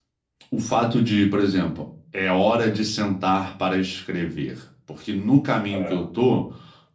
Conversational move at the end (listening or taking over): listening